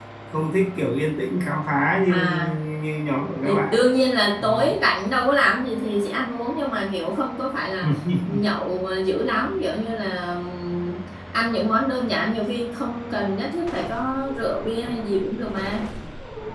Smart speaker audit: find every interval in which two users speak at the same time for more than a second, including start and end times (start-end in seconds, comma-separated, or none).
none